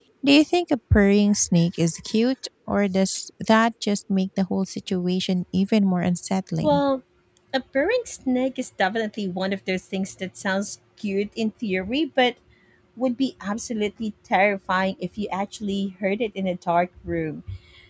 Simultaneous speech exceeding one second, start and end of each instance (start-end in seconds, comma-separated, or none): none